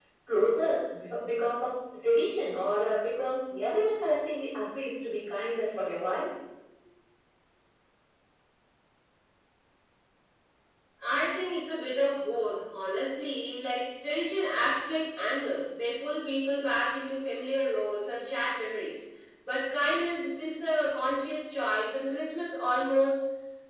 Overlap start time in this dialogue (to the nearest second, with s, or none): none